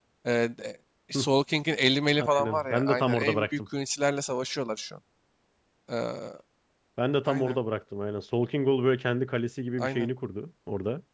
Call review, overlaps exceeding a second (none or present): present